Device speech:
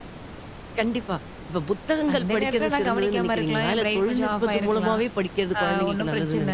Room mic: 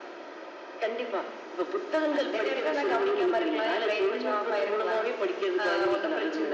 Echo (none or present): present